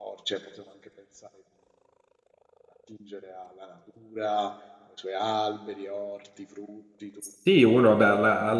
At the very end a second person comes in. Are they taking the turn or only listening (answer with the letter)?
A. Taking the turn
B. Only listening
A